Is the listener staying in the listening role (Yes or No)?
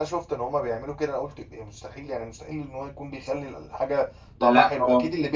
Yes